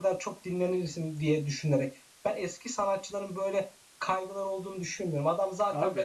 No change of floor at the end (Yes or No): Yes